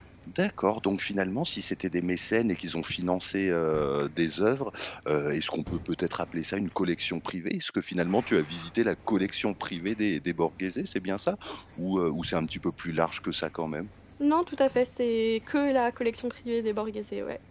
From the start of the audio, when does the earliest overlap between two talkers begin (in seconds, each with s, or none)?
none